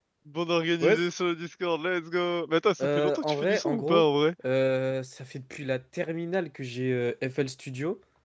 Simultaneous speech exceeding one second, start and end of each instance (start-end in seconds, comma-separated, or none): 2.8-4.0